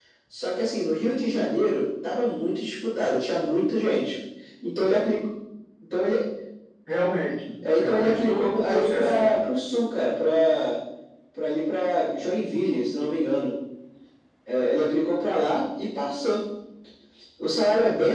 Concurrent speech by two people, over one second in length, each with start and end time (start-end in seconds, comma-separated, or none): 7.7-9.4